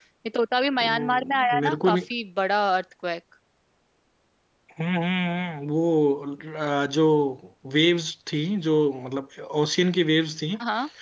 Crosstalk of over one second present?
Yes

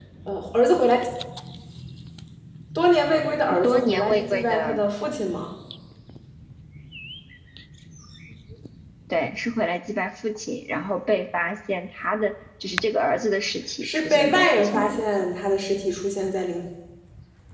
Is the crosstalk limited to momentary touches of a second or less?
No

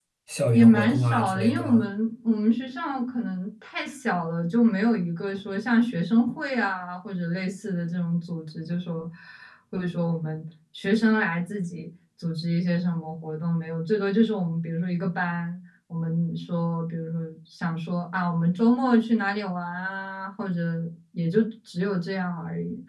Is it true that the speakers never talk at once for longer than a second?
No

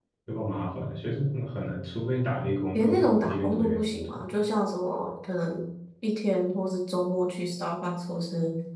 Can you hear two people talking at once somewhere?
Yes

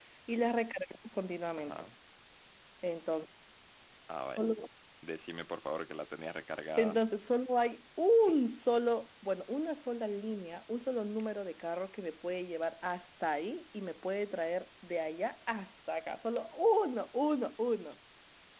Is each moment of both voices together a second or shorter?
Yes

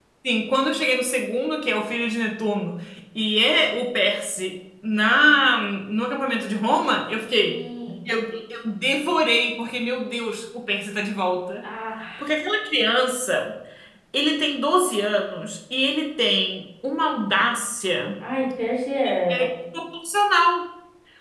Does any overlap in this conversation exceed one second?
No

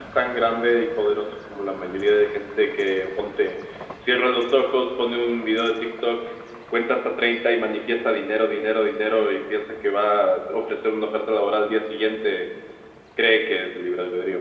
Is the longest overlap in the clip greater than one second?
No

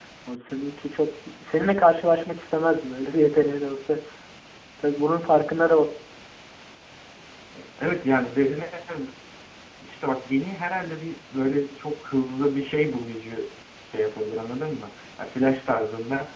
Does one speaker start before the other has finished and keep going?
No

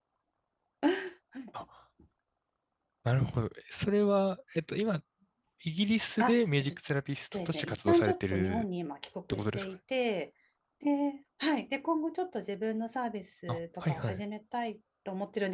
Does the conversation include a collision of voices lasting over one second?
Yes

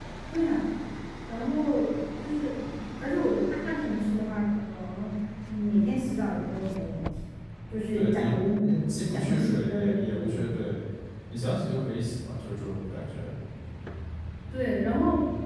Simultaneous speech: Yes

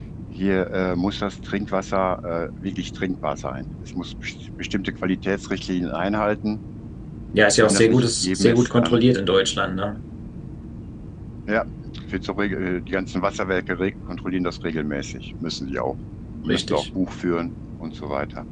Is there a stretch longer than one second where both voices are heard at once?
Yes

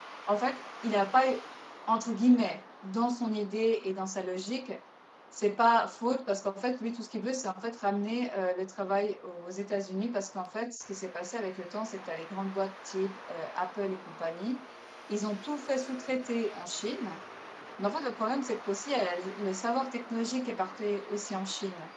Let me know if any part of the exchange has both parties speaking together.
No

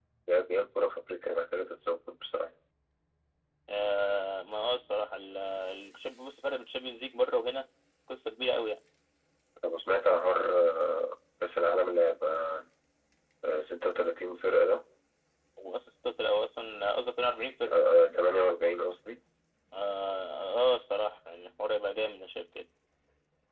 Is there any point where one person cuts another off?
No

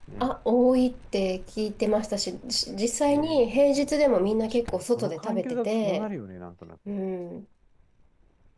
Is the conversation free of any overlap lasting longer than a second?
No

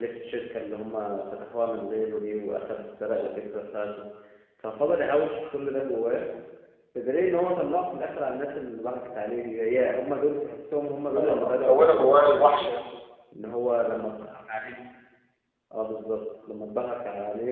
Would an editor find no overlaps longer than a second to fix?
No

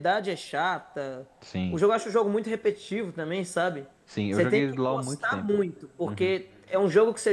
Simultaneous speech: Yes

